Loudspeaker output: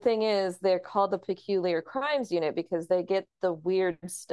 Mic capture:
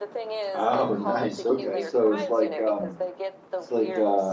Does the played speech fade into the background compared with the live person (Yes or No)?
Yes